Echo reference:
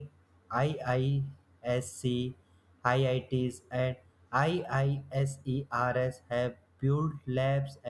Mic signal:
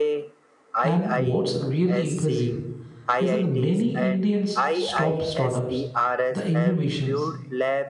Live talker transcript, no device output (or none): And what's really impressive is that the many Indians stop startups, the innovations,